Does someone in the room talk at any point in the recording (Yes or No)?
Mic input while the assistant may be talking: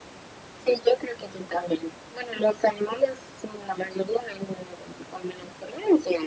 No